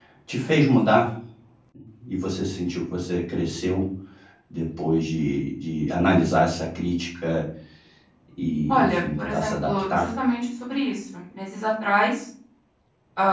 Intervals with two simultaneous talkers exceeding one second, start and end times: 8.7-10.1

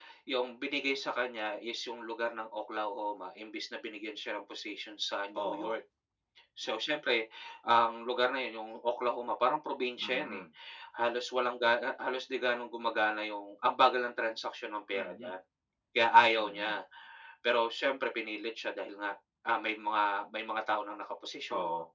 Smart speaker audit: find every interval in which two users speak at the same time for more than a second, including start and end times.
none

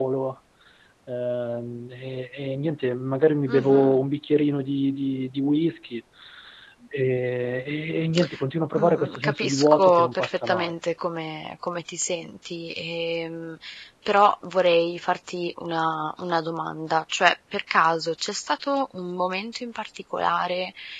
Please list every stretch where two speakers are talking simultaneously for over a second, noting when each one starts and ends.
8.8-10.7

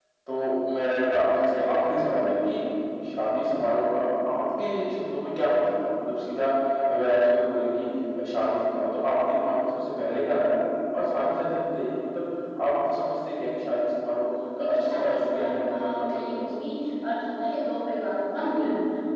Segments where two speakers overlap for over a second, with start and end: 14.6-16.5

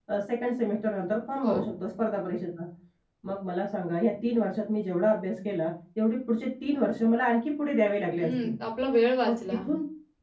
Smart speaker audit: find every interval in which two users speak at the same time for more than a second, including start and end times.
none

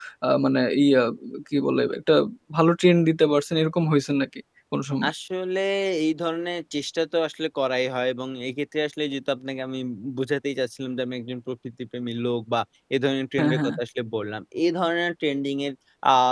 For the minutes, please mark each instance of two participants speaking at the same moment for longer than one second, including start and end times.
none

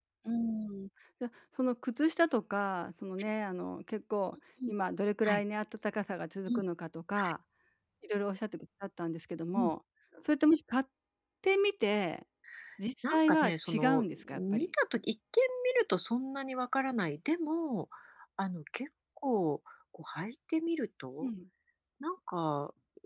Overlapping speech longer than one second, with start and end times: 13.1-14.7

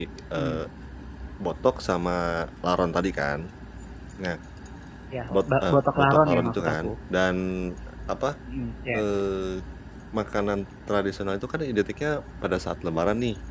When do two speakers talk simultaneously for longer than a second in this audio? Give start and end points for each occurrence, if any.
5.3-6.9

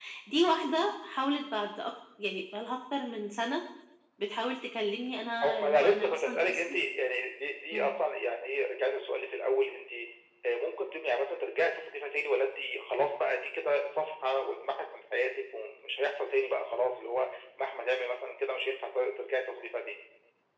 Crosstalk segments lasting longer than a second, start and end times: 5.4-6.8

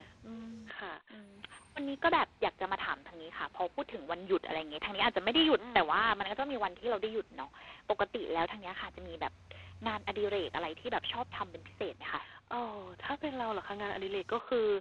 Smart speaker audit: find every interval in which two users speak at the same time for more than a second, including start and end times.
none

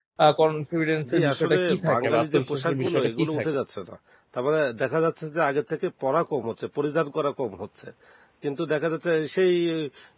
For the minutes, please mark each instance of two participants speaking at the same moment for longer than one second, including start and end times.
1.1-3.4

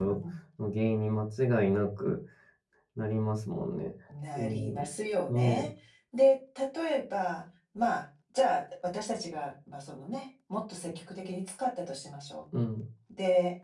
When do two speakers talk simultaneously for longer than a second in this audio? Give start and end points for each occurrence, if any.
none

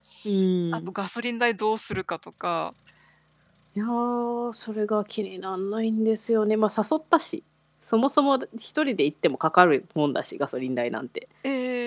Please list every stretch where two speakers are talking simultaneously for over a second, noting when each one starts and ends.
none

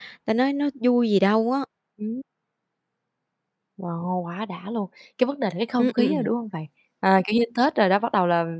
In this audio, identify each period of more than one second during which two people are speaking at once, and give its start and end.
none

